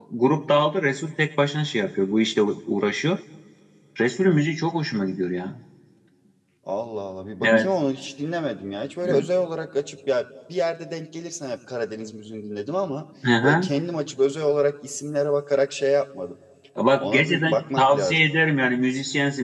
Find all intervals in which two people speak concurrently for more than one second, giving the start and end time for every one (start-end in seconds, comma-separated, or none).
17.0-18.2